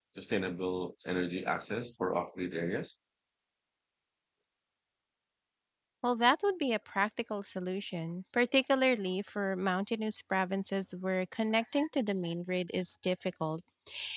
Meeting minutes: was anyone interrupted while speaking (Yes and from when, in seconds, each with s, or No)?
No